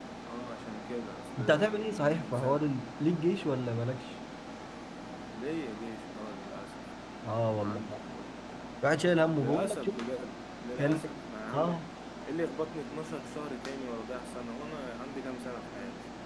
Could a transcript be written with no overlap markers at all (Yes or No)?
No